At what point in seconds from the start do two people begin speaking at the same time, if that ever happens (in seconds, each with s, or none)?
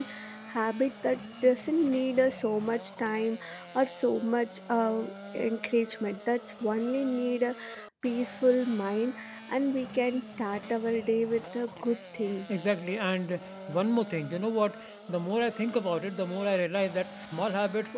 none